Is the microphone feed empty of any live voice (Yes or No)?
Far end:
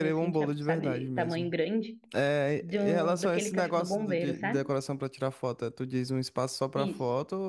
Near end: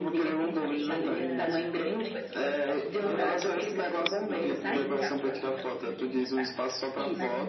No